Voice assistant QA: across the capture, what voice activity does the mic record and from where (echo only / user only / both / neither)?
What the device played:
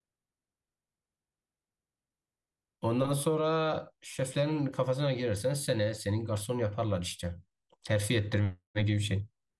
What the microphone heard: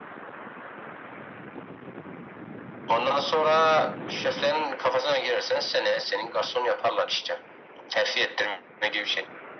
echo only